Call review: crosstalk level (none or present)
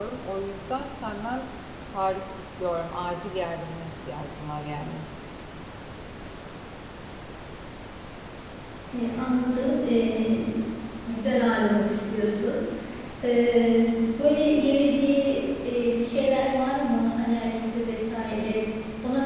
none